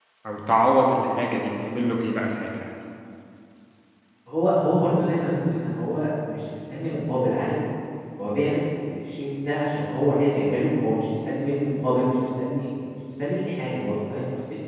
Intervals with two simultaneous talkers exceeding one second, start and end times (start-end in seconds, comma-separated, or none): none